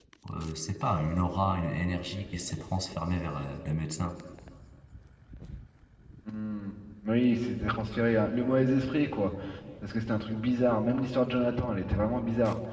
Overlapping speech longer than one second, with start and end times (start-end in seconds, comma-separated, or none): none